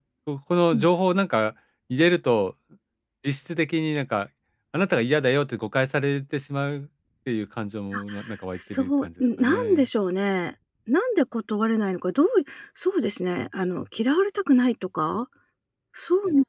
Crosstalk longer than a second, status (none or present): present